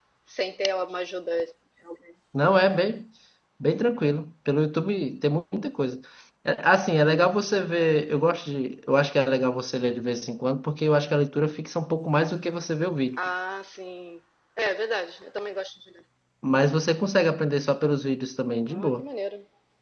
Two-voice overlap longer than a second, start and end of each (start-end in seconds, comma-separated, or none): none